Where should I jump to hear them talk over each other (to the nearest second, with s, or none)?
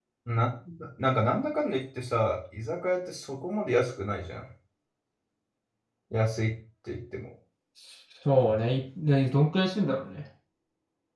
none